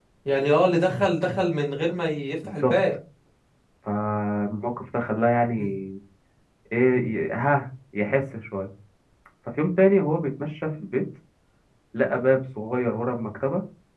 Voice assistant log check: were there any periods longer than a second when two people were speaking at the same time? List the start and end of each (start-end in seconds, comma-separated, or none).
none